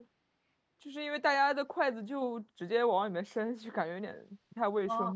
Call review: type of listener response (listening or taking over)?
taking over